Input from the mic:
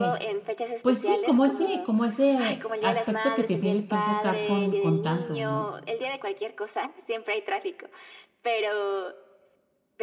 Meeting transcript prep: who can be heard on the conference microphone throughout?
both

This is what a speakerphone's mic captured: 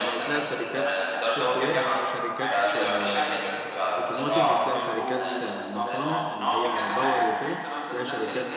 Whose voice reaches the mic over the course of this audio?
both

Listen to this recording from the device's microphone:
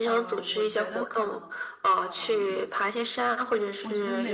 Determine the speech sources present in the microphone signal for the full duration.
both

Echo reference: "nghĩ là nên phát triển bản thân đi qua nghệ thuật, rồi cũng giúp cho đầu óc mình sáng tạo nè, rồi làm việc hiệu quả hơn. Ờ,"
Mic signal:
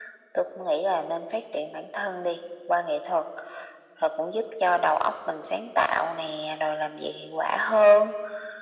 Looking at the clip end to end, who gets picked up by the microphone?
echo only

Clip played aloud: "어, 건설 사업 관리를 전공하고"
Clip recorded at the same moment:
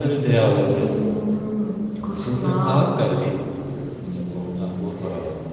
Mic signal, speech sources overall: both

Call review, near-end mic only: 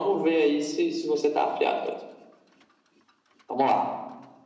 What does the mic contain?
echo only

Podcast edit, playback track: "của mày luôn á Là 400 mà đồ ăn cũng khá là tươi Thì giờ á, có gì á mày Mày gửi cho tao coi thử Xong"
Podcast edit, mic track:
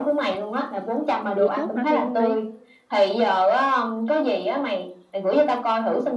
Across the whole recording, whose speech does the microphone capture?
both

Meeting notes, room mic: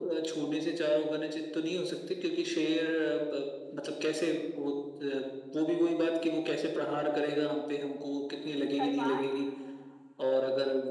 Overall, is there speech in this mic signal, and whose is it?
both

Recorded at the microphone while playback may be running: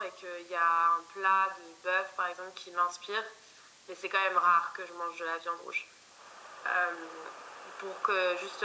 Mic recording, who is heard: echo only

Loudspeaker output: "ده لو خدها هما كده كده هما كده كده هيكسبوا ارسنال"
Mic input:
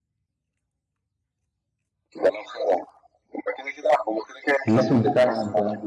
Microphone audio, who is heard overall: both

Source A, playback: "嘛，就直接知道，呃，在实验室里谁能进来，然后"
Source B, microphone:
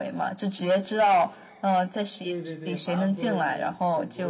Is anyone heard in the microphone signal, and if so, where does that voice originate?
both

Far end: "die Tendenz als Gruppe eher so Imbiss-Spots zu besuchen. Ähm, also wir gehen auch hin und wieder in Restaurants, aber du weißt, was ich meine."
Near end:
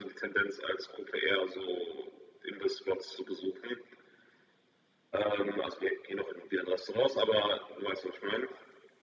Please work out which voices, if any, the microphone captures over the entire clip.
echo only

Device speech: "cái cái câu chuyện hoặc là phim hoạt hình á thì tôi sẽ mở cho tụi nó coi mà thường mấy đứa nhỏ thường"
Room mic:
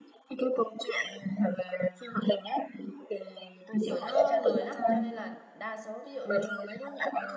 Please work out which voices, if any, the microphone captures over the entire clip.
both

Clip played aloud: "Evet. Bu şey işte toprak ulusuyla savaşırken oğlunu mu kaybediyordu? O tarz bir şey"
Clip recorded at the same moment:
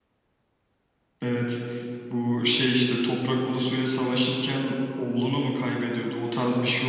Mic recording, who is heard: echo only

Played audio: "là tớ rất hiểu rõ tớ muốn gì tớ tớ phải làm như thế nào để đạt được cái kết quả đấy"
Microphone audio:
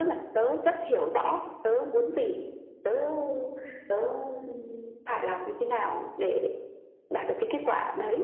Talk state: echo only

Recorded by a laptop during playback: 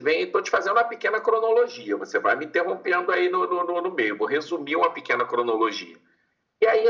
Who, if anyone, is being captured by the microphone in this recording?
echo only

